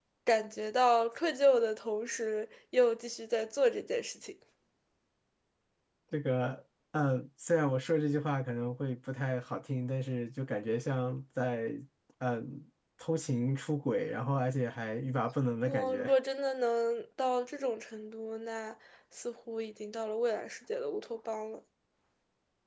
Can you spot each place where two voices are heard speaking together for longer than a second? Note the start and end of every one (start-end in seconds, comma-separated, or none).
none